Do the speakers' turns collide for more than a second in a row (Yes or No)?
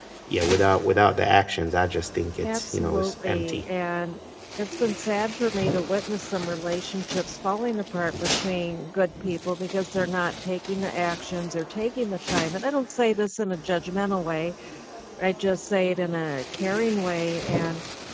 Yes